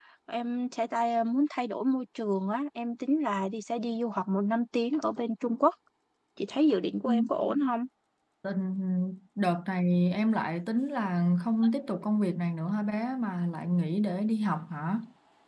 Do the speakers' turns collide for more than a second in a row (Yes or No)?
No